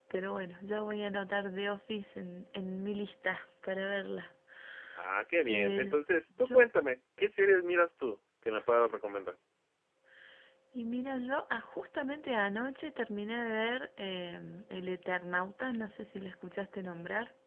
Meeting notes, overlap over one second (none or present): none